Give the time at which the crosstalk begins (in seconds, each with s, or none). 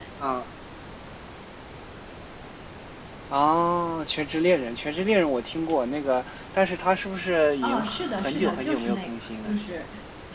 7.6 s